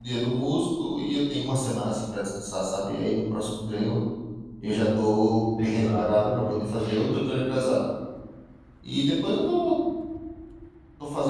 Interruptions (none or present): present